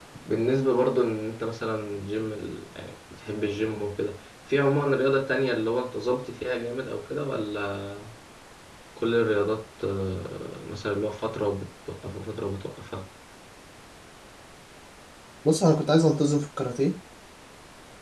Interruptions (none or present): none